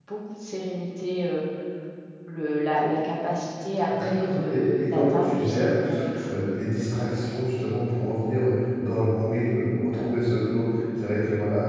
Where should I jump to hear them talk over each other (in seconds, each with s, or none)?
3.9 s